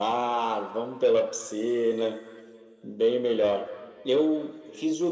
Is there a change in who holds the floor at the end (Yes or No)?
No